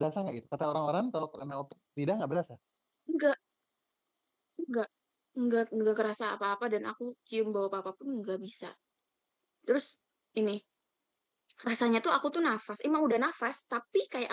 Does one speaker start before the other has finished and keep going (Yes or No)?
No